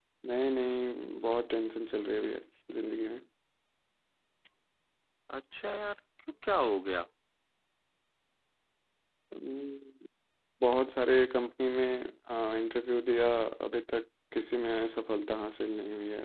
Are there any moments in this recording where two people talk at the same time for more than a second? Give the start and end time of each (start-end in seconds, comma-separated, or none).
none